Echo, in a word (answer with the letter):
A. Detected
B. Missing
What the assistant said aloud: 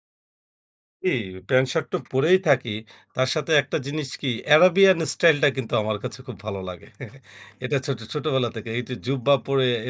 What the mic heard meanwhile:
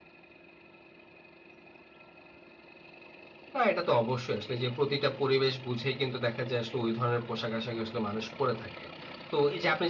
B